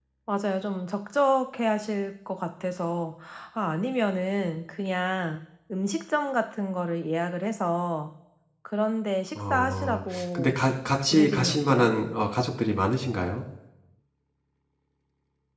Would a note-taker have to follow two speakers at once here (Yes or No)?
Yes